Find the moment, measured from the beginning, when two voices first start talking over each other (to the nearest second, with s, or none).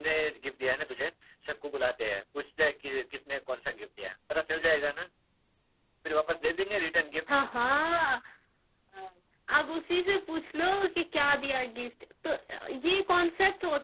none